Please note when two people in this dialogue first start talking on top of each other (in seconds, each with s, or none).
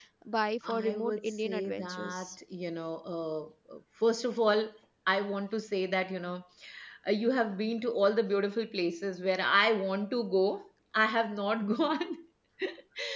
0.7 s